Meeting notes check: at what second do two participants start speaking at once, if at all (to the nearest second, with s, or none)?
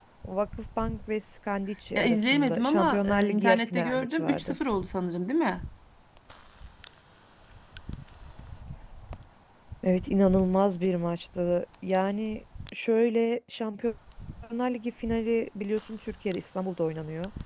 2 s